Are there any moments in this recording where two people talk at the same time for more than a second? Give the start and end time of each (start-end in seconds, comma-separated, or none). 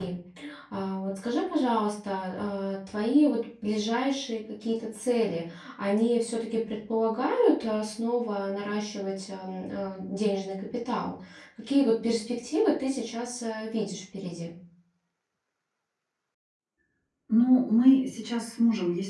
none